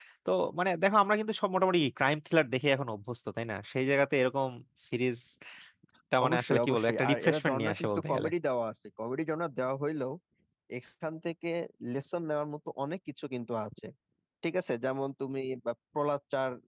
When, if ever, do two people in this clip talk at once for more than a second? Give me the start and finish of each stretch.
6.2-8.3

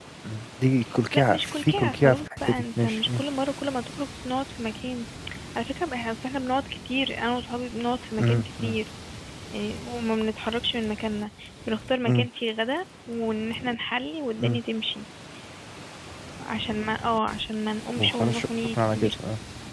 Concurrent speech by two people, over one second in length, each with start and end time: 1.1-3.2, 18.0-19.2

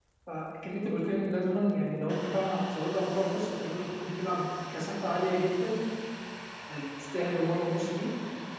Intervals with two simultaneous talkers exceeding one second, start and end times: none

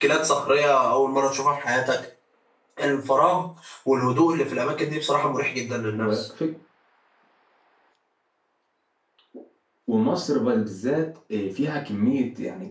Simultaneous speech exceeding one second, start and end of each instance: none

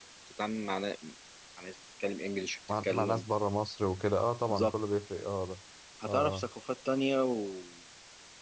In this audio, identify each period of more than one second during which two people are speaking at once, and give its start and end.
none

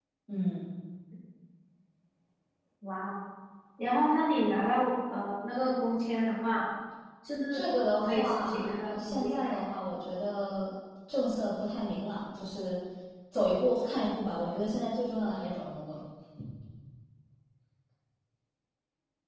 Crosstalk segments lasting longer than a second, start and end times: 8.0-9.7

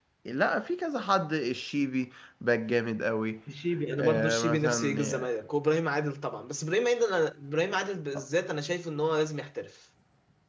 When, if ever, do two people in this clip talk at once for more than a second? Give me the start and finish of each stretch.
4.0-5.3

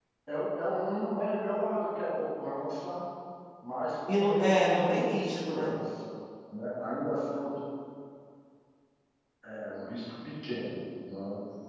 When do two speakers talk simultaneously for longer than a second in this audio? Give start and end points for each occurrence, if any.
4.1-5.8

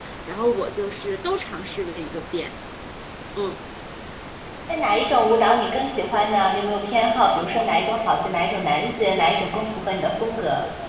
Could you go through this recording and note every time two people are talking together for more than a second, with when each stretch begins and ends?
none

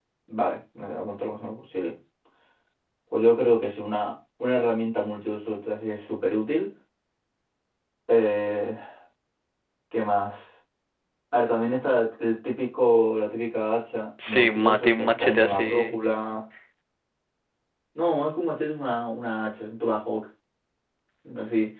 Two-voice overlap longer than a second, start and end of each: 14.3-15.9

